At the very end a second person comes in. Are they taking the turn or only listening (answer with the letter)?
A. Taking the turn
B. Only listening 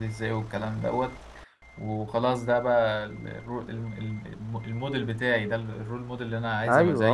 A